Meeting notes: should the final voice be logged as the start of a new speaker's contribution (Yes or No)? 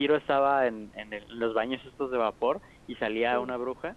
No